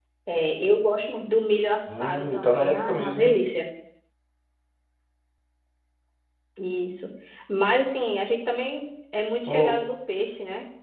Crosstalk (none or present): present